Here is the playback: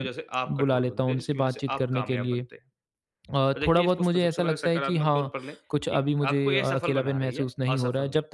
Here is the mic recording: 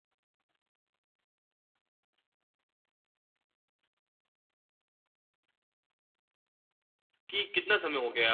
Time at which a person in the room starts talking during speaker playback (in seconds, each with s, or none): 7.3 s